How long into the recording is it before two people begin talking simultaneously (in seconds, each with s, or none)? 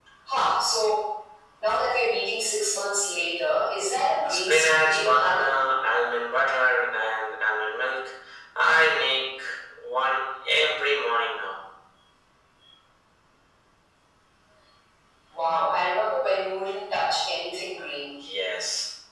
4.3 s